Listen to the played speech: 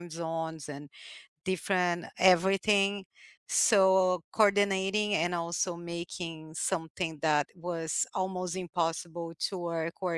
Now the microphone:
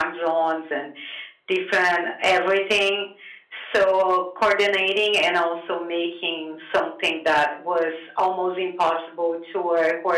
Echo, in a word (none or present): present